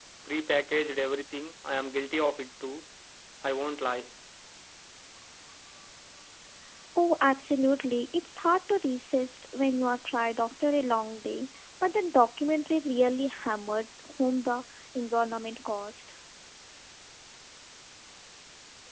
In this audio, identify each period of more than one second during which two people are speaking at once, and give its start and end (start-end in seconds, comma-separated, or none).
none